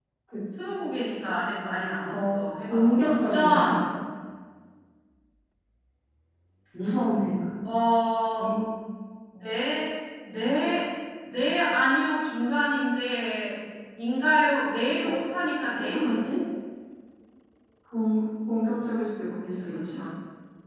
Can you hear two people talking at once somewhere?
Yes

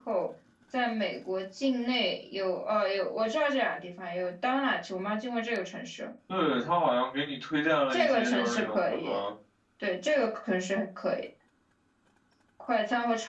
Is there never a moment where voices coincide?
No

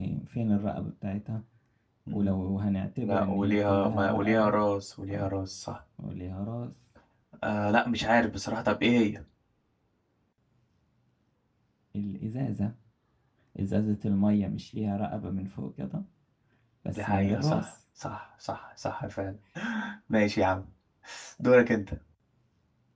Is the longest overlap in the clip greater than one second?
Yes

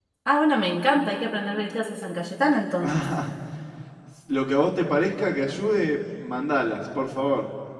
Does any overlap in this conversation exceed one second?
No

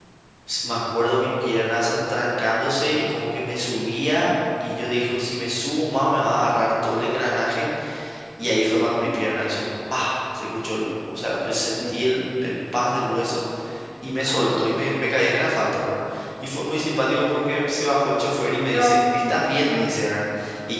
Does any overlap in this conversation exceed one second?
No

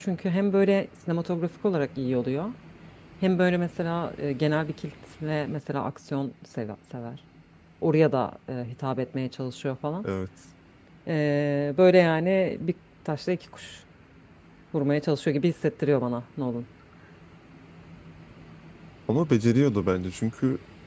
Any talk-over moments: No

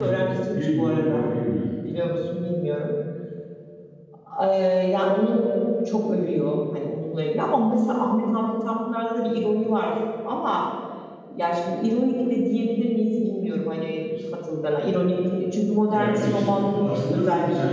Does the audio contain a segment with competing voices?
Yes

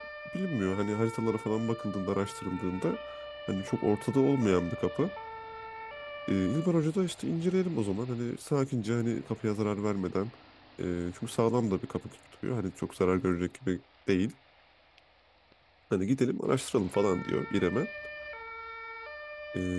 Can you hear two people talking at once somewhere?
No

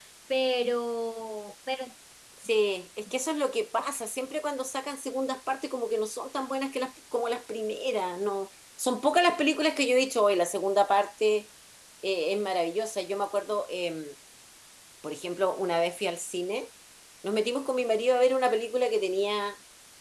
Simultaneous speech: No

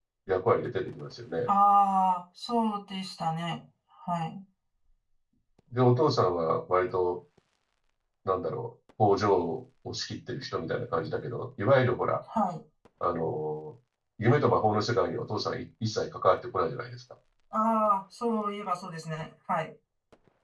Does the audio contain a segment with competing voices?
No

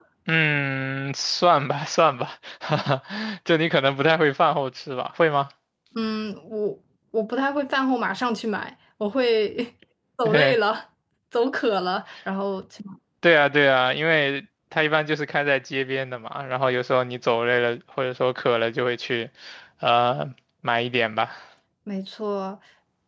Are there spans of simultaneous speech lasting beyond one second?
No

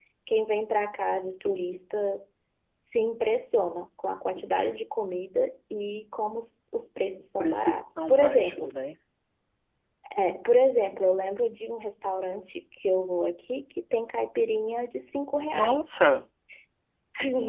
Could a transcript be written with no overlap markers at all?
No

